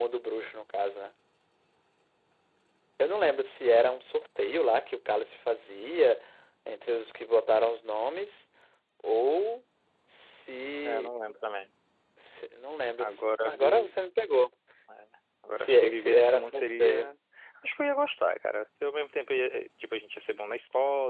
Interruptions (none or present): present